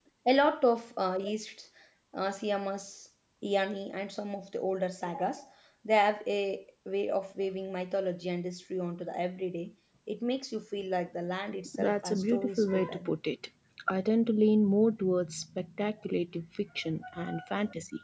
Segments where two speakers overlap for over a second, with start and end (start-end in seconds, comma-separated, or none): 11.8-13.1